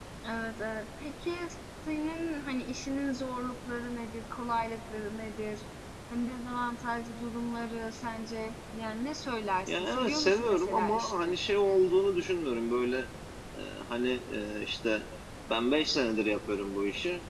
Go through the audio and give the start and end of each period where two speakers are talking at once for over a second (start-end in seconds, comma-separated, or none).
9.7-11.3